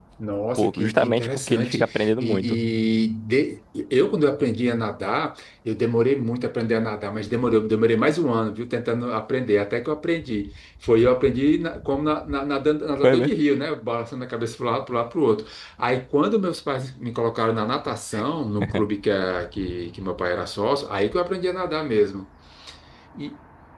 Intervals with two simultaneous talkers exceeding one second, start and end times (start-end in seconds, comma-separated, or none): 0.6-2.6